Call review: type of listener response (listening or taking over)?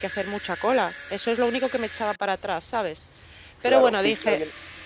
taking over